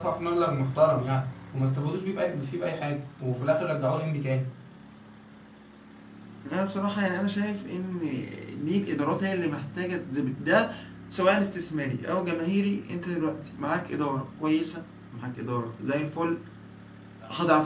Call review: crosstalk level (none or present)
none